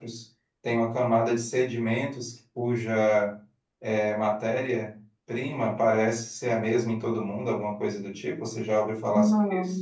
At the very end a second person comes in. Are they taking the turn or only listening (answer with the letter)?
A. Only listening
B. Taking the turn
B